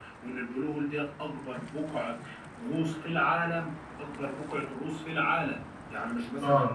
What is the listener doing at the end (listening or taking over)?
listening